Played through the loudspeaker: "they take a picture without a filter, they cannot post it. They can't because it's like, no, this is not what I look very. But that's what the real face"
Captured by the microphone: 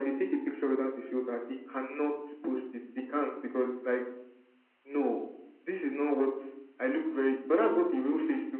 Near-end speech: none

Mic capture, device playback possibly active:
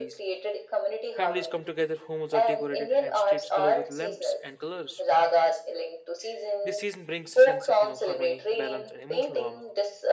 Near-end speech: present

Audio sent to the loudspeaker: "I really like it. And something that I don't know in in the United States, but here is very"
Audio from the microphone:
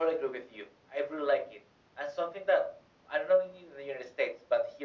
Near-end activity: none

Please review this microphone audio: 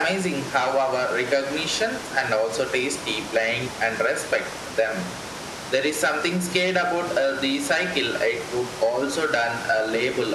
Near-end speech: none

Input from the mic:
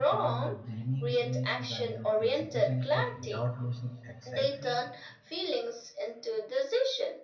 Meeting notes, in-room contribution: present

